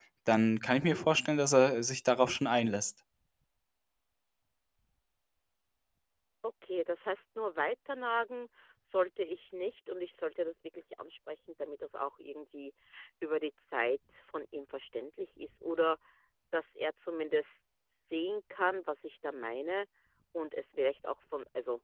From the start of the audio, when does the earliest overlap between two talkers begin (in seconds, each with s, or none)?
none